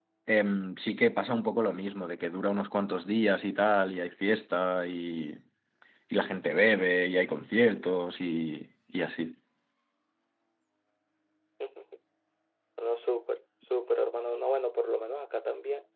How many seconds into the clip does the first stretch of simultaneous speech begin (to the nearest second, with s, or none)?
none